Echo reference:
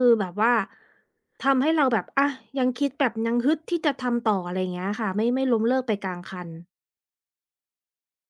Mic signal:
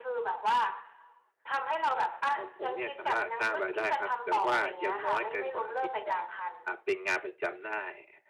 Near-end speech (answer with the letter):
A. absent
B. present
B